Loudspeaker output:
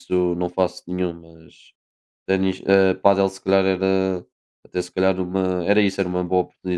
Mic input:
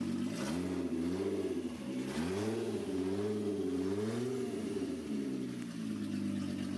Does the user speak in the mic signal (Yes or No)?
No